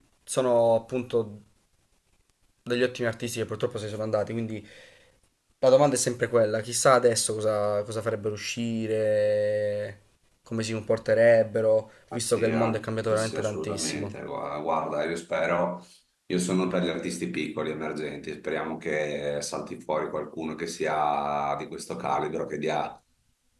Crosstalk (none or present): present